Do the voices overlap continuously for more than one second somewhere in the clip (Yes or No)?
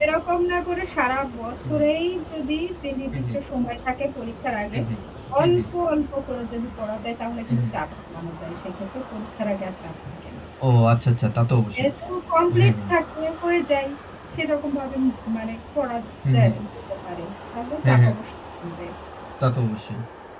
No